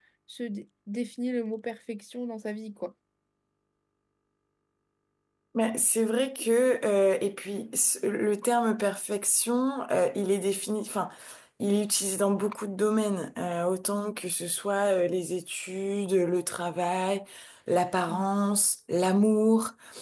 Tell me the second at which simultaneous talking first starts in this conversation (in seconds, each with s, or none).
none